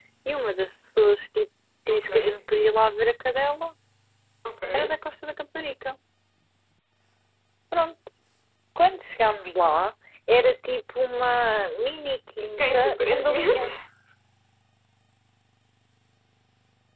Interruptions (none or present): present